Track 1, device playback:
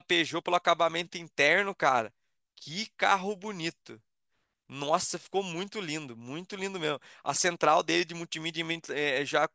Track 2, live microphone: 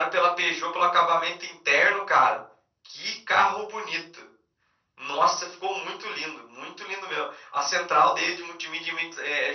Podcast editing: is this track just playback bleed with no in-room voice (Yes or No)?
Yes